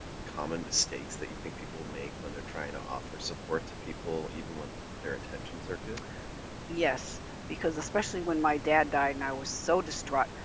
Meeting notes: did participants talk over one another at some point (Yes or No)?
No